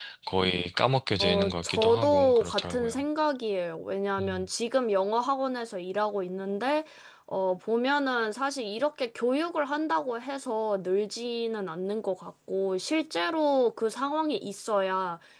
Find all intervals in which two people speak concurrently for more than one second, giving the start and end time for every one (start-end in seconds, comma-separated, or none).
1.2-3.0